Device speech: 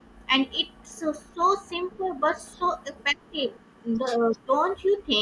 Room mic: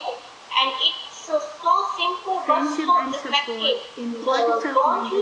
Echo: present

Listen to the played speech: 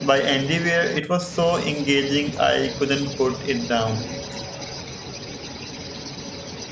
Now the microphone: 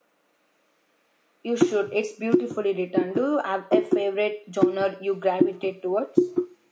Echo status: none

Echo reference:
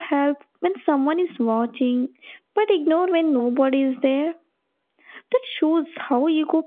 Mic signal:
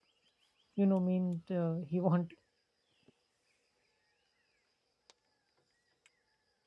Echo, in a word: none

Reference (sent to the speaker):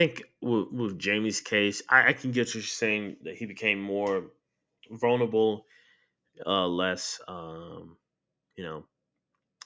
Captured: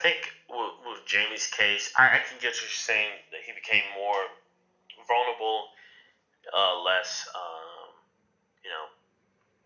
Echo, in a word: present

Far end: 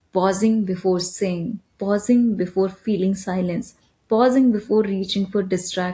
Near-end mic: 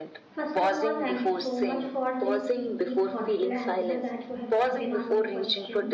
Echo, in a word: present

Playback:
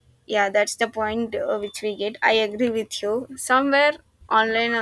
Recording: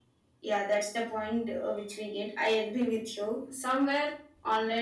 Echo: present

